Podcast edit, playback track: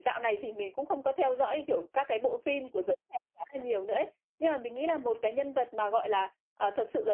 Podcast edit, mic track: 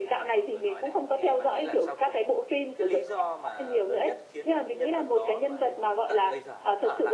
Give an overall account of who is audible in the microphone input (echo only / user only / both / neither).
both